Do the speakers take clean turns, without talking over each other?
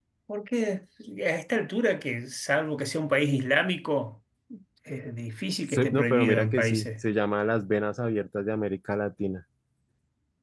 No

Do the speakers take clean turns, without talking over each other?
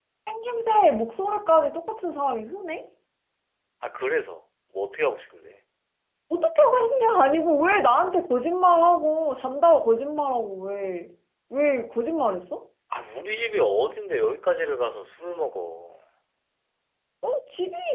Yes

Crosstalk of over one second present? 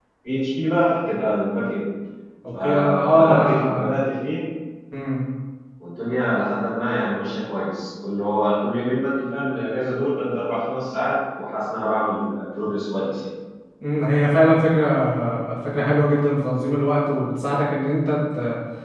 Yes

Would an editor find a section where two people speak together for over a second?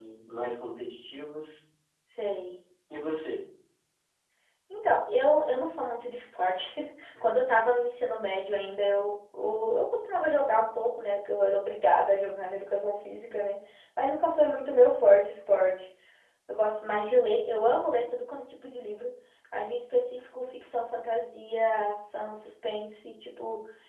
No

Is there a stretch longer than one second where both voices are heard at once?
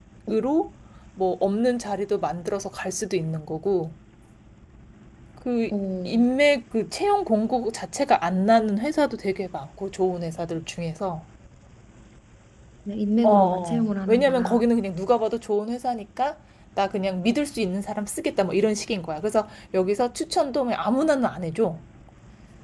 Yes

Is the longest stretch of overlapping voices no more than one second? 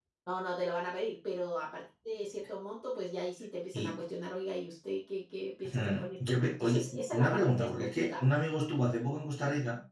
No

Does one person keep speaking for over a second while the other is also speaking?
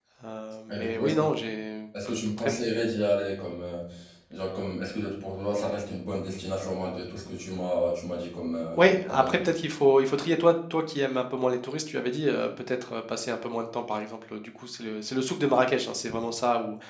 No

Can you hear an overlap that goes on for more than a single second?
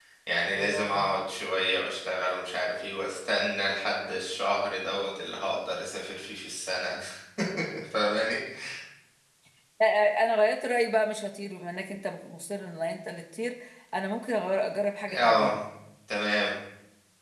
No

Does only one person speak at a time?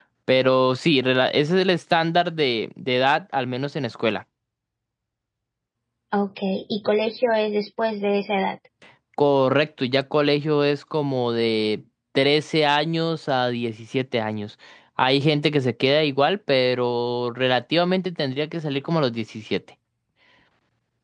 Yes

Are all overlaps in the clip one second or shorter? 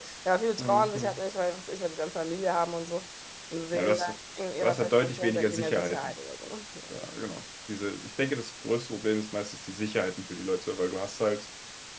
No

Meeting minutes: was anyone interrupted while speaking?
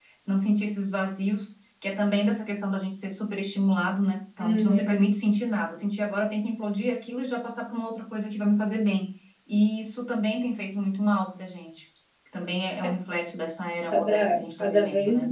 Yes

